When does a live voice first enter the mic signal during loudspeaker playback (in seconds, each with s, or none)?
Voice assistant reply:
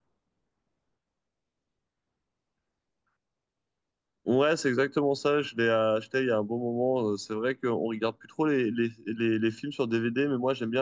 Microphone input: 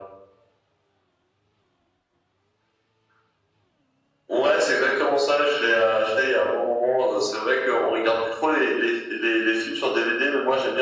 none